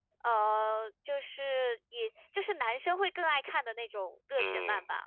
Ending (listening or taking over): taking over